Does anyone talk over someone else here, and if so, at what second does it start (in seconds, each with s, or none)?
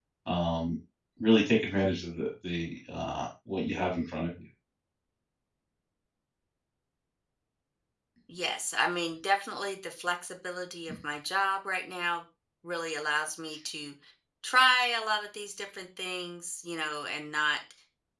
none